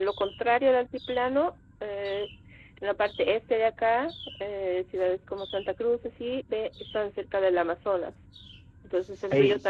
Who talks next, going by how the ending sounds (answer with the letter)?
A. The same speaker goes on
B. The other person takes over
A